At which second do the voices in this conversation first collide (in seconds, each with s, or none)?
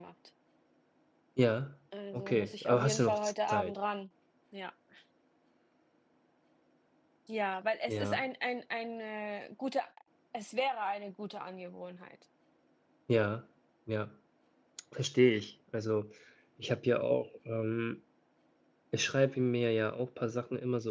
2.1 s